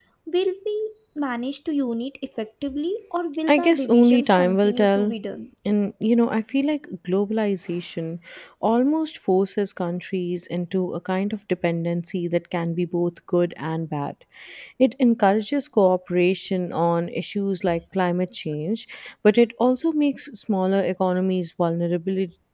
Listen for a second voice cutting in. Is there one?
Yes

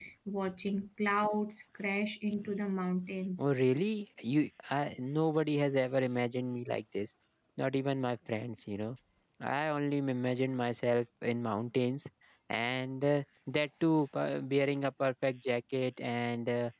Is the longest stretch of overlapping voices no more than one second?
Yes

